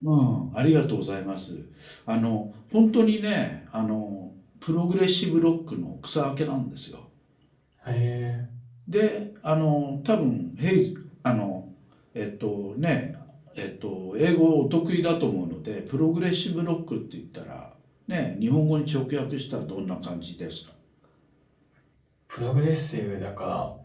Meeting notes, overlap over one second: none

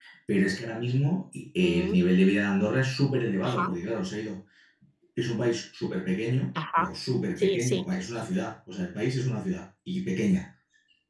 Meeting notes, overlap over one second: none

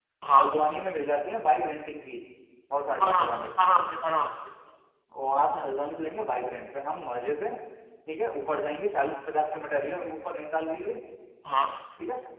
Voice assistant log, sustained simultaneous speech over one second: none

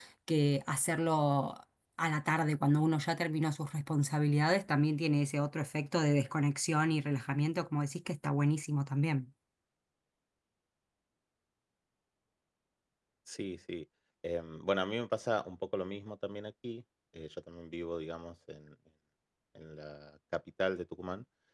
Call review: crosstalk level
none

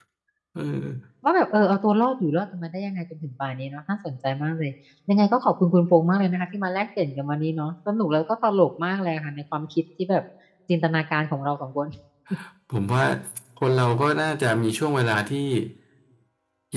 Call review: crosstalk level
none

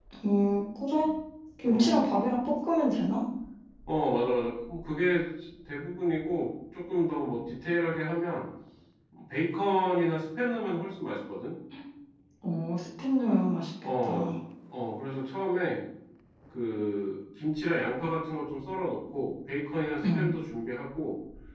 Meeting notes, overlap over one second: none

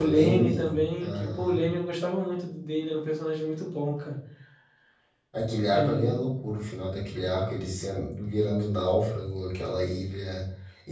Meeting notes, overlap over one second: present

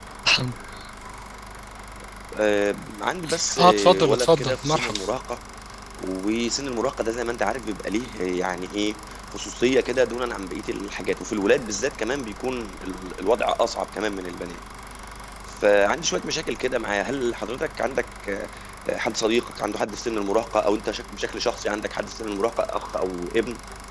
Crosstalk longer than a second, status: present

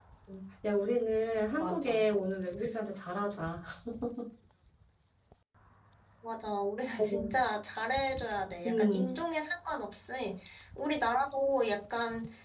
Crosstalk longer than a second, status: none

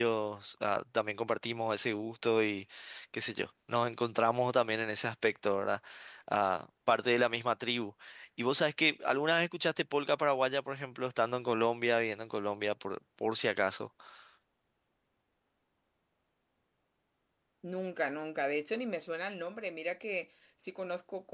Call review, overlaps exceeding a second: none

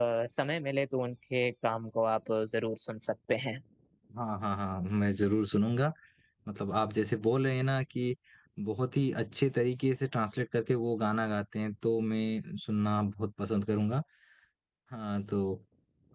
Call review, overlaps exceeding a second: none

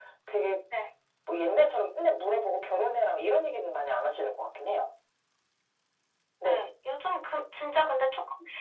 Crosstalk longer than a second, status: none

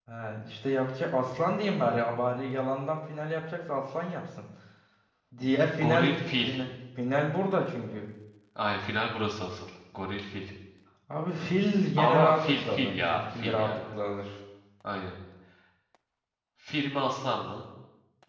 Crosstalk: present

